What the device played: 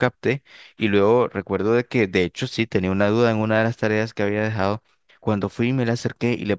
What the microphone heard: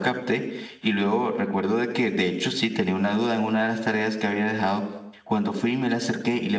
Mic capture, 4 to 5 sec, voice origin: echo only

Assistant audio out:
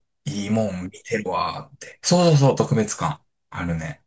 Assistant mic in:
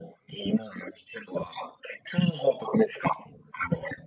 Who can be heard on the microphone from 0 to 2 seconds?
echo only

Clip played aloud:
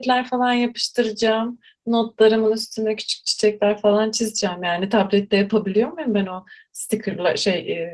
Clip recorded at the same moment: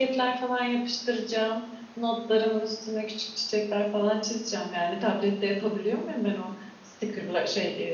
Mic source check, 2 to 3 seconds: echo only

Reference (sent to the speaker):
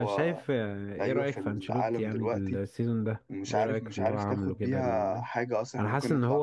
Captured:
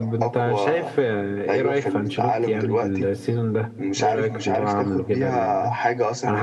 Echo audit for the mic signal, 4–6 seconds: echo only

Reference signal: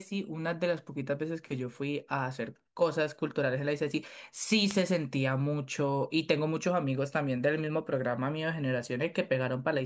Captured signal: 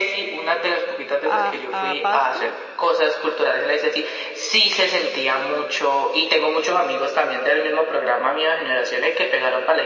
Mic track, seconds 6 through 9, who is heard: echo only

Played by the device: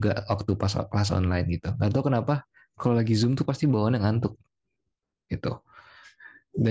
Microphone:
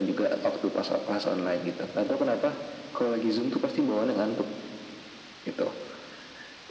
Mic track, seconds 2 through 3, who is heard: echo only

